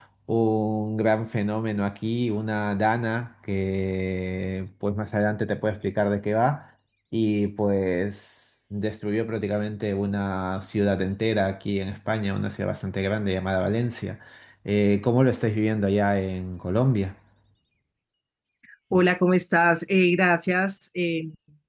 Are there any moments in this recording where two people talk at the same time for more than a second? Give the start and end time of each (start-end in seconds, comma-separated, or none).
none